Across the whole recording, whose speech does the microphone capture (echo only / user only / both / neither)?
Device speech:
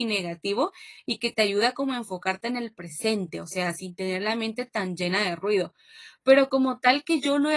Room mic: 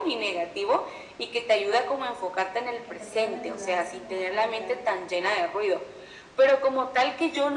both